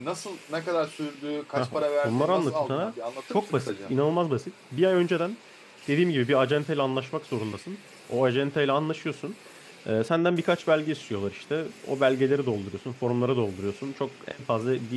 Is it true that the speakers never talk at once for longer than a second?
No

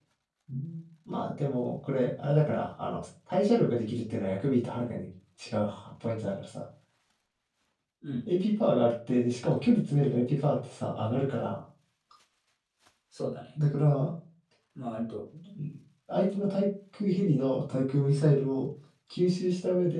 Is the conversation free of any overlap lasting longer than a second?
Yes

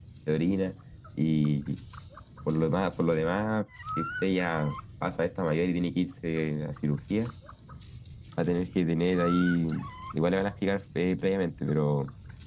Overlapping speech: No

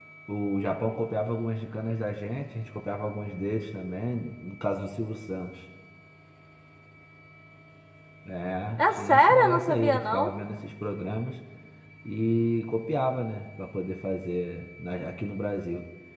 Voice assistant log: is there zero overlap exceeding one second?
No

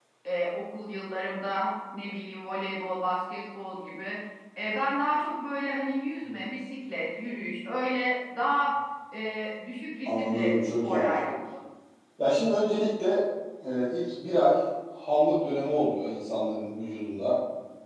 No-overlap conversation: No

